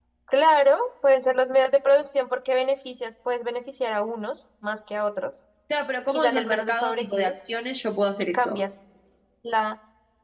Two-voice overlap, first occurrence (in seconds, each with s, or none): 6.1 s